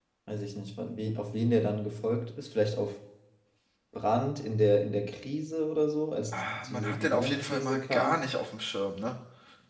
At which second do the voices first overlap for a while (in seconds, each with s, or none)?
6.3 s